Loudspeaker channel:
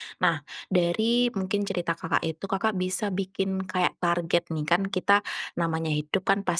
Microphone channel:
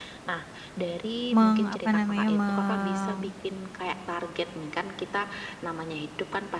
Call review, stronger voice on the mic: user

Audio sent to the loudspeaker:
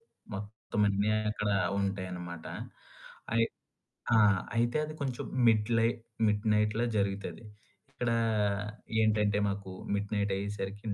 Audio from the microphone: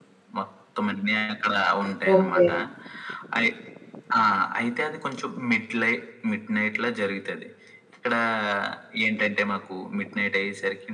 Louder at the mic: user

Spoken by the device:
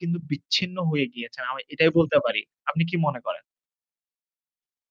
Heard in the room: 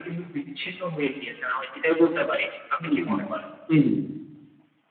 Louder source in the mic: user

